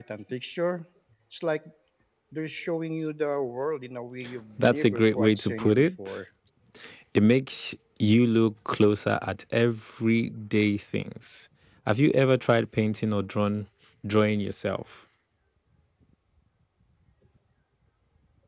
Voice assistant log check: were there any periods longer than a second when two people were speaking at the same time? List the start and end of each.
4.6-6.2

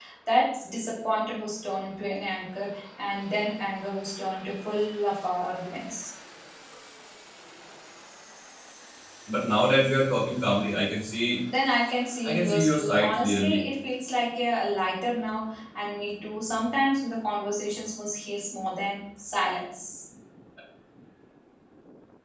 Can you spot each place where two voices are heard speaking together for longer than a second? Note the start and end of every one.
12.2-13.6

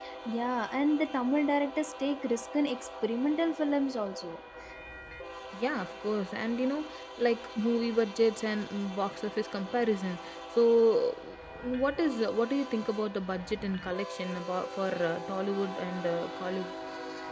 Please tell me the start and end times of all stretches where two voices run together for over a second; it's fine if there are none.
none

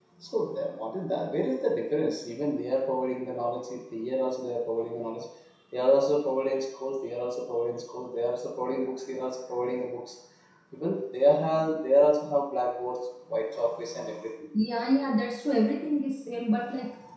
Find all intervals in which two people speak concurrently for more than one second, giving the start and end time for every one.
none

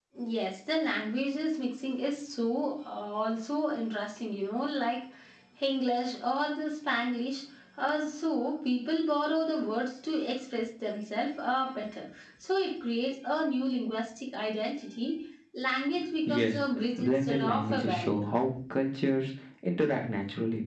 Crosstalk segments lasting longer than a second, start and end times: 17.0-18.2

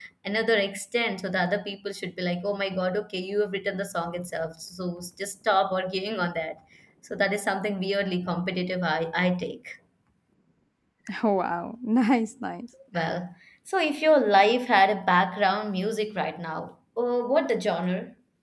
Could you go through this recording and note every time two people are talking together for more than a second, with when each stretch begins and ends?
none

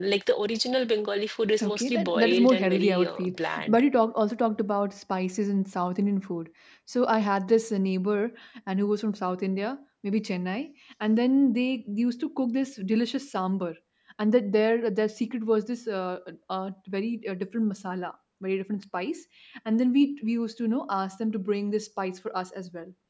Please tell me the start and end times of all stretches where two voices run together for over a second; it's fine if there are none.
1.6-3.8

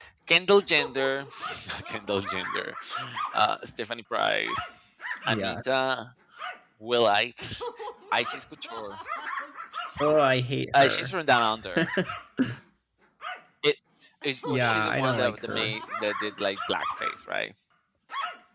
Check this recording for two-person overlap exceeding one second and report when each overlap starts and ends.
14.4-15.8

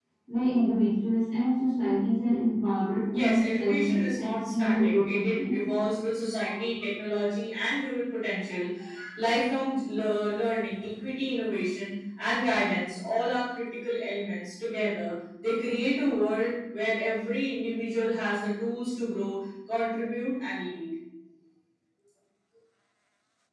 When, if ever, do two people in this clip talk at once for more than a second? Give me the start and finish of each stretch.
3.1-5.5

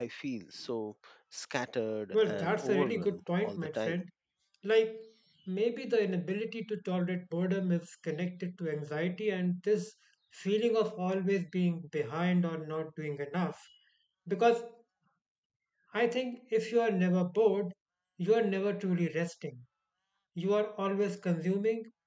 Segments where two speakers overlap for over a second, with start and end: 2.1-4.0

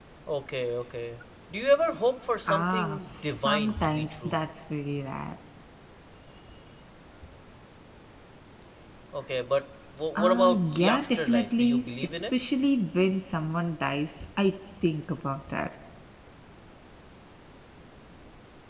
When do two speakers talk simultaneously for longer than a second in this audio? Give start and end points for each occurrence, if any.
2.5-4.4, 10.2-12.2

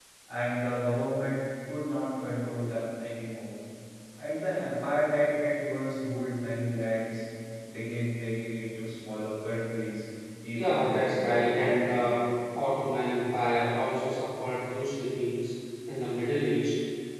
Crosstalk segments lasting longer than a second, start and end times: 10.5-12.1

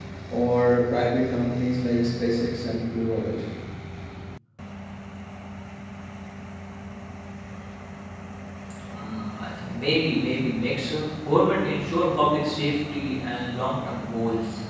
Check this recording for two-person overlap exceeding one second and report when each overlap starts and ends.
none

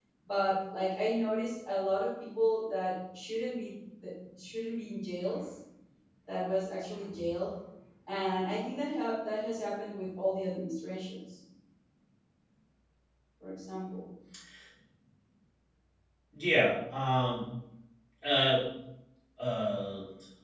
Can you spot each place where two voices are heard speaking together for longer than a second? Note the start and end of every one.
none

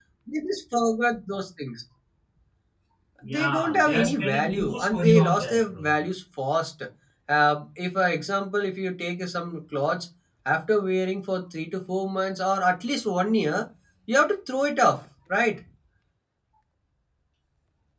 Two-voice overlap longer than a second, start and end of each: 3.2-5.9

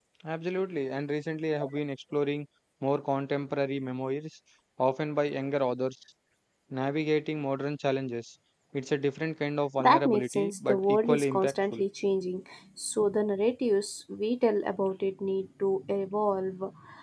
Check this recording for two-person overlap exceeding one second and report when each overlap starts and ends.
9.8-11.8

